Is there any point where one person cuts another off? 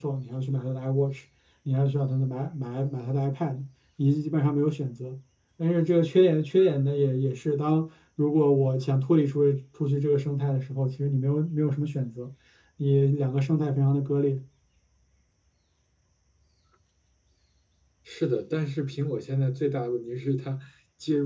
No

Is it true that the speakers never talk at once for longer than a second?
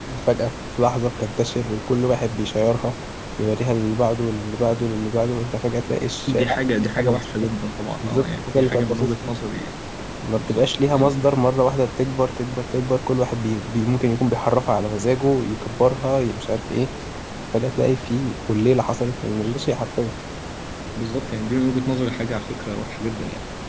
No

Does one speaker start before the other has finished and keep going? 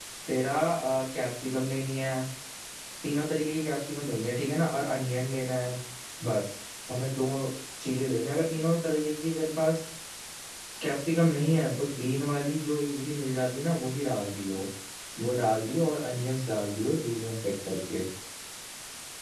No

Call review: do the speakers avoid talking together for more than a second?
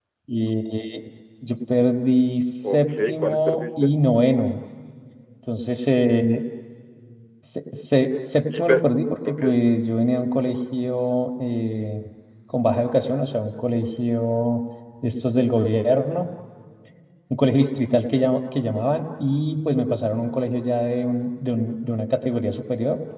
No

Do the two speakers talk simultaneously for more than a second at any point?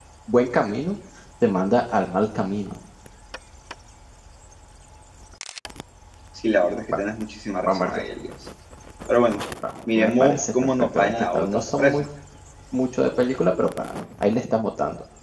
Yes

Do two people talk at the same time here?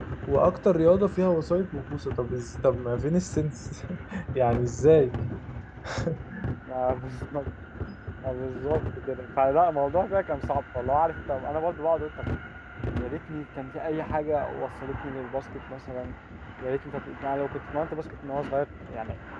No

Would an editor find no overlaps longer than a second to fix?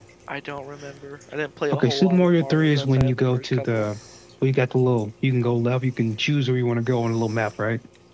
No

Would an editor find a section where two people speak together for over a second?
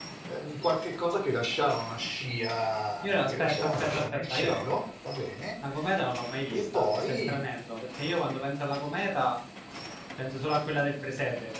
Yes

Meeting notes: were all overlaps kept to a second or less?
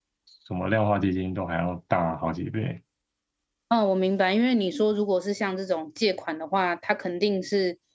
Yes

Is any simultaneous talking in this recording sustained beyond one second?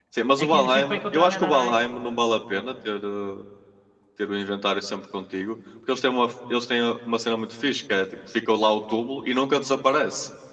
Yes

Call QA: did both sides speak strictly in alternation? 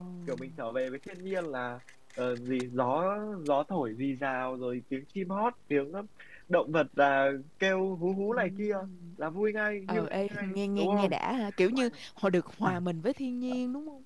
No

